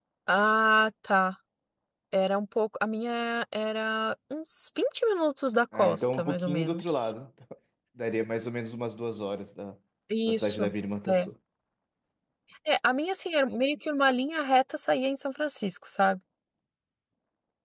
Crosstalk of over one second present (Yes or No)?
Yes